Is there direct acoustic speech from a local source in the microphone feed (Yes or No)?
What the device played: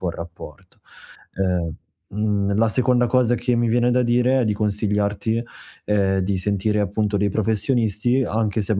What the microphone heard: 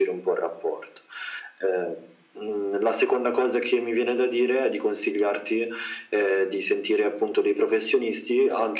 No